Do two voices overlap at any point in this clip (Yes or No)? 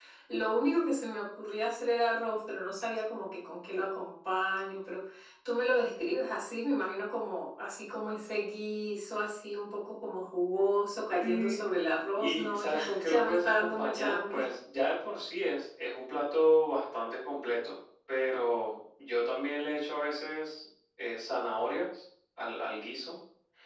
Yes